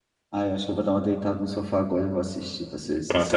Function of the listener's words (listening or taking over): taking over